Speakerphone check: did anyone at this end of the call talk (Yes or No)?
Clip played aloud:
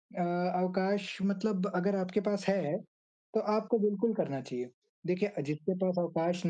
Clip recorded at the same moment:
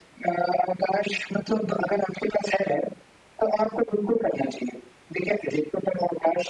No